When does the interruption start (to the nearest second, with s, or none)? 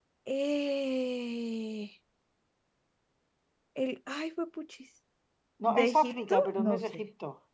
6 s